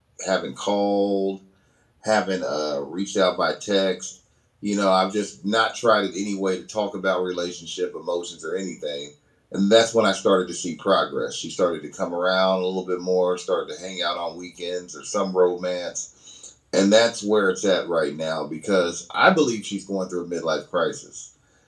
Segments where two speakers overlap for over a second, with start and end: none

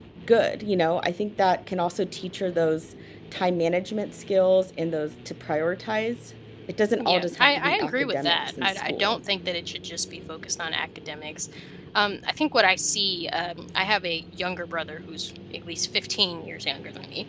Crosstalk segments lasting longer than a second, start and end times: 7.0-9.2

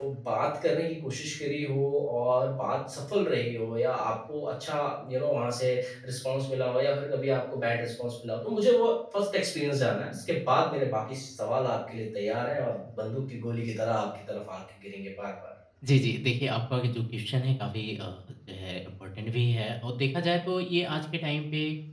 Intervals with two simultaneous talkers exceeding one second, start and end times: none

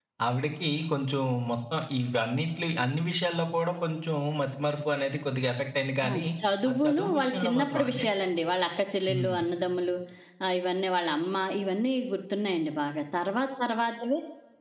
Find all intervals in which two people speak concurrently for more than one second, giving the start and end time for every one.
6.7-8.1

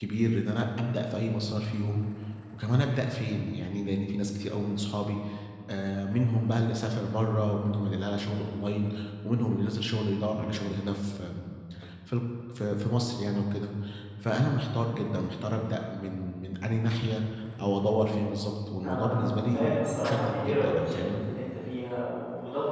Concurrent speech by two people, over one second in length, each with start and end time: 18.8-21.2

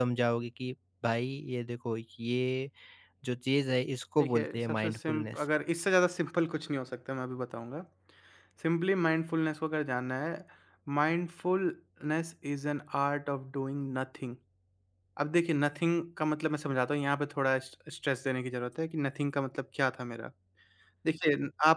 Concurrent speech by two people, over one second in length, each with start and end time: 4.2-5.4

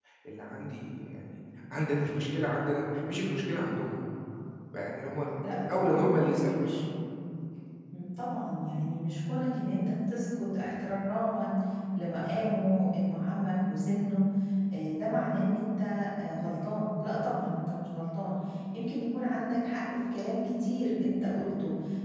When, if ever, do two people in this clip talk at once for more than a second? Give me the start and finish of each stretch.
5.5-6.7

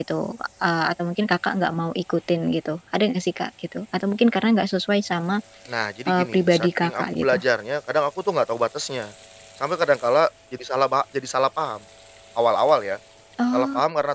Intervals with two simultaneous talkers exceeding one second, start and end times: 6.1-7.4

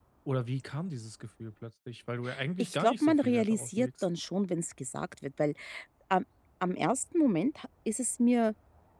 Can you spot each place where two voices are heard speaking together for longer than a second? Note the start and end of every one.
2.6-3.9

